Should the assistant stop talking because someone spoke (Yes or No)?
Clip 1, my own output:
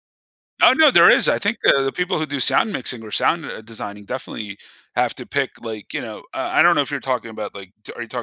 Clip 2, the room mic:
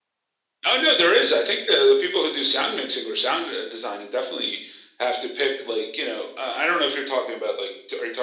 No